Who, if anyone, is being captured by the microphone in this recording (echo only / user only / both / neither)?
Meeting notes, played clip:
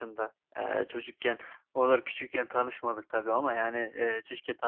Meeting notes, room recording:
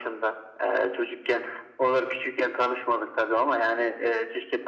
echo only